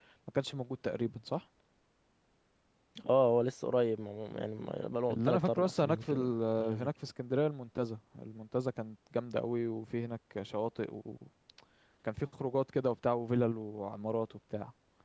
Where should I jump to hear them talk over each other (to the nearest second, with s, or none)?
5 s